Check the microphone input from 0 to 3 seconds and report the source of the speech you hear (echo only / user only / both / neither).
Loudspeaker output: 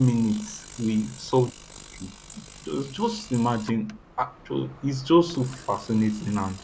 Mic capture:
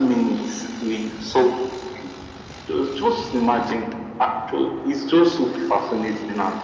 echo only